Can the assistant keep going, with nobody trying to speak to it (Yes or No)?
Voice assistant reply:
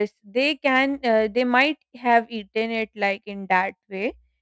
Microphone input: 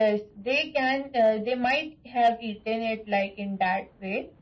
Yes